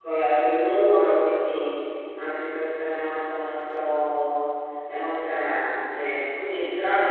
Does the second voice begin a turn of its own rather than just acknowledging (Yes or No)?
No